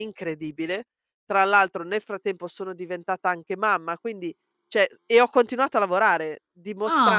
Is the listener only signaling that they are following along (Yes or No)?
Yes